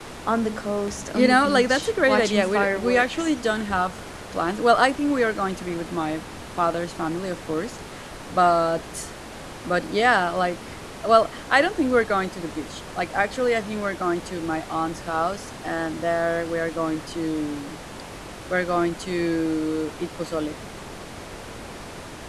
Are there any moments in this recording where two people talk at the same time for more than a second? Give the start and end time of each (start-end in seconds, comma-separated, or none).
1.1-3.3